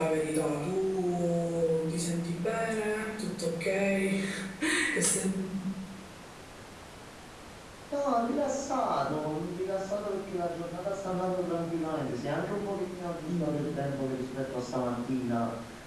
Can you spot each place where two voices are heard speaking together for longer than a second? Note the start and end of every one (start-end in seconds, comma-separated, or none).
none